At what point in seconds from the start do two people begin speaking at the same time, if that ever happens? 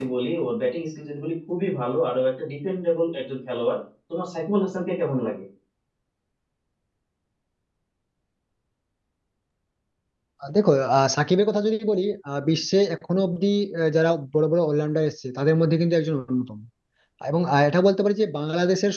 none

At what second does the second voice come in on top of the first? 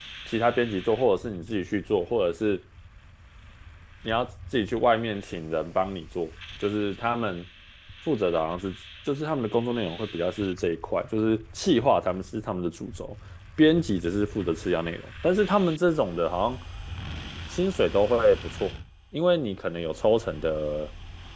none

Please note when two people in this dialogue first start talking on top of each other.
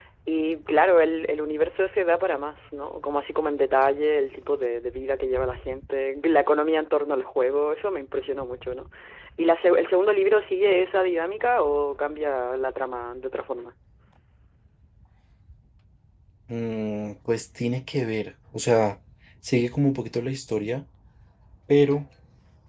none

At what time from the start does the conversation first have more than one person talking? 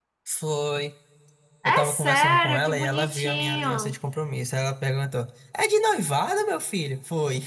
2 s

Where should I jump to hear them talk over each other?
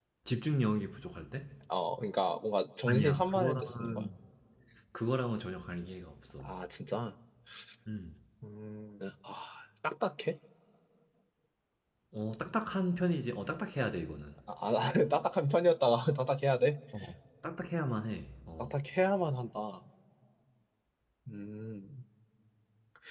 3 s

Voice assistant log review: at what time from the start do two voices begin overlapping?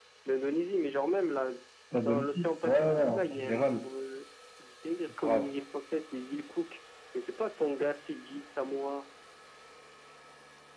2 s

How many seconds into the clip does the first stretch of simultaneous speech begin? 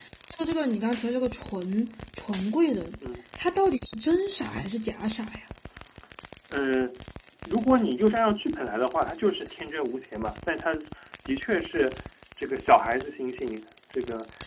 none

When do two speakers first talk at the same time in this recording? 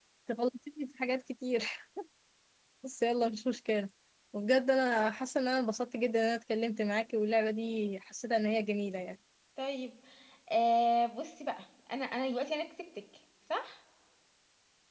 none

